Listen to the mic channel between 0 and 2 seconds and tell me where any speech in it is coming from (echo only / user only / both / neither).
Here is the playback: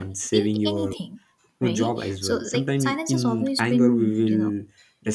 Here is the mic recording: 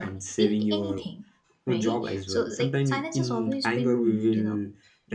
echo only